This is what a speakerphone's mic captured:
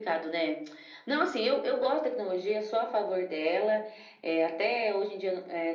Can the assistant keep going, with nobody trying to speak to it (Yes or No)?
Yes